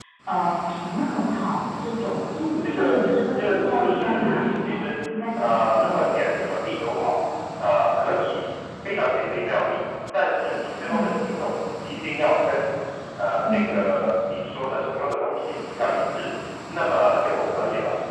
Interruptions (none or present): present